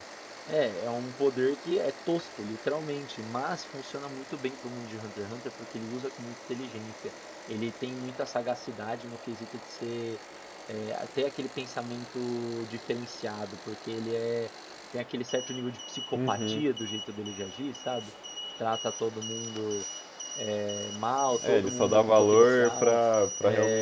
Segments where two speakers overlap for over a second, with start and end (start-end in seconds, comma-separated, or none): 21.4-23.0